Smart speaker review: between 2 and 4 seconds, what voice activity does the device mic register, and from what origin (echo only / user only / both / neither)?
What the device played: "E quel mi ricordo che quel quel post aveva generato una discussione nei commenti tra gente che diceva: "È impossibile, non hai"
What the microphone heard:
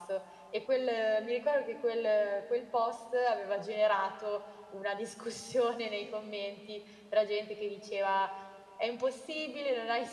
echo only